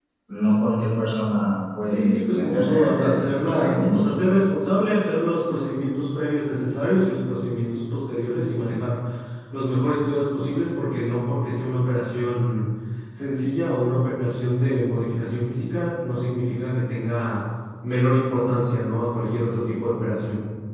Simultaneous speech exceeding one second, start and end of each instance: 1.9-4.0

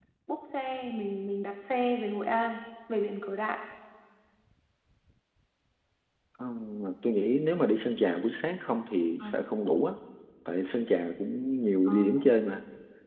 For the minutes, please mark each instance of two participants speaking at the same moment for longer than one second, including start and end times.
none

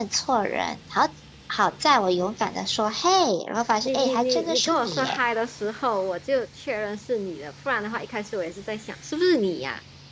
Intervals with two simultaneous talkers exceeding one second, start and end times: 3.8-5.2

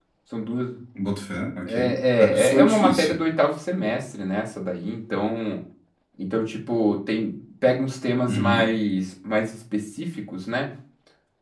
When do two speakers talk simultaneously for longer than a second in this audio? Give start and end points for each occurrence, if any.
1.7-3.2

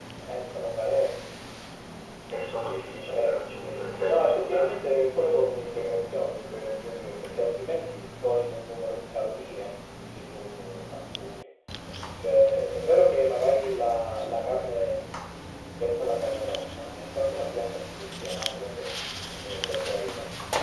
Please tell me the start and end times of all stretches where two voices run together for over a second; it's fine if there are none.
2.9-5.5

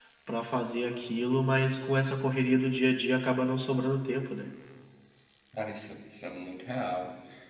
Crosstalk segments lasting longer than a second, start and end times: none

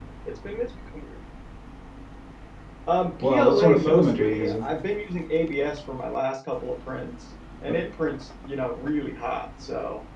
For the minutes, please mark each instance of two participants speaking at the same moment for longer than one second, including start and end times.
3.3-4.6

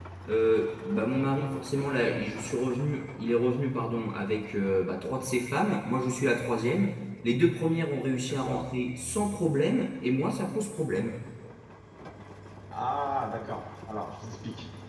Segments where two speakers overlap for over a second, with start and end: none

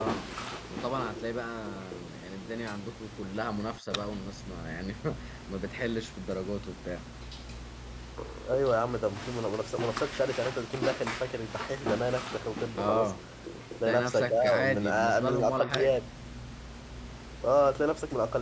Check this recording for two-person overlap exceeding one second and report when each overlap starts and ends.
13.8-16.0

